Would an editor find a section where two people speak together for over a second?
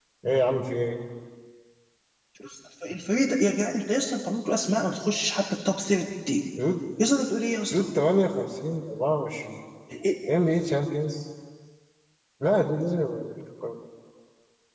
No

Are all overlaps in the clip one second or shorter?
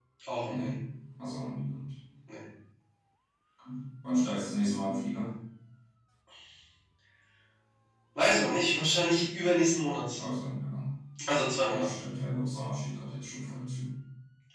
Yes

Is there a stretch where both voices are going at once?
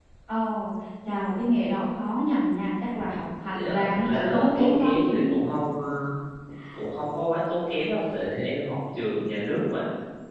Yes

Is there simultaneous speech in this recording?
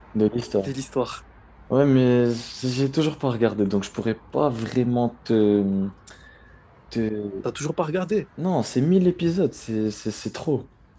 No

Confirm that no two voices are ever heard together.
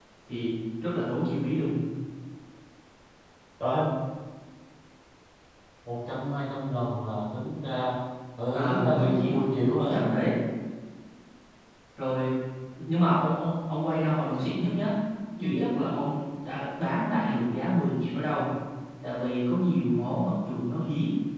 No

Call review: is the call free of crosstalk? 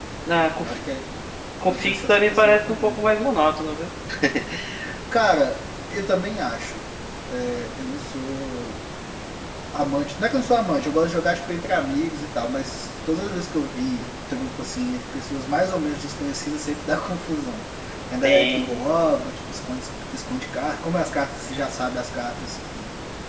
No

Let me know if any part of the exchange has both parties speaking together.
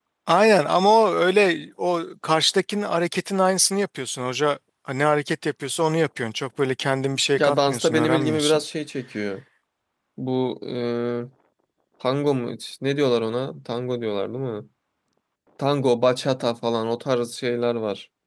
Yes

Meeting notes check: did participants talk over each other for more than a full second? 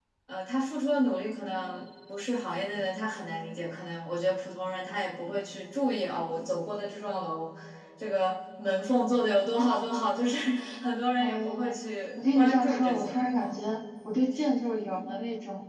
Yes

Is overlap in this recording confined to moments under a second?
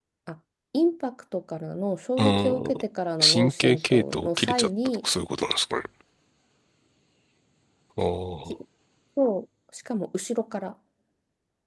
No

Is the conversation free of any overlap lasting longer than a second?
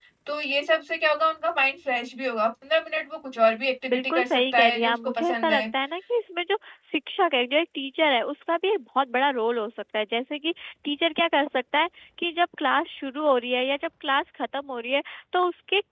No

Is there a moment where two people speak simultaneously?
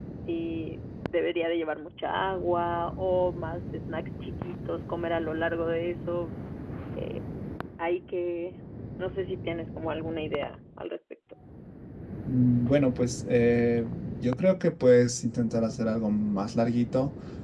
No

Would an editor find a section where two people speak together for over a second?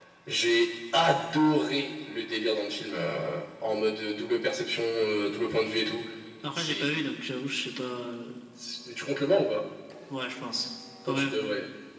No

